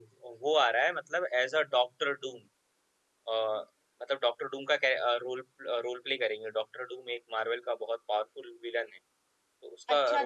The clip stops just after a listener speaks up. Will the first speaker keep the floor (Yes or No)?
No